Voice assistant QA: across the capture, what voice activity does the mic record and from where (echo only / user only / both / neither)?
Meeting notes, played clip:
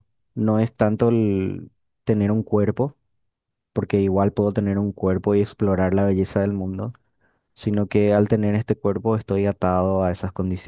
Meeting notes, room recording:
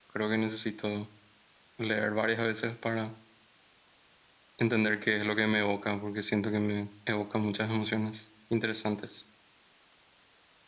user only